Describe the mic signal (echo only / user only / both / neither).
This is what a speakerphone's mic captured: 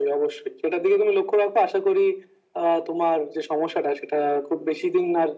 echo only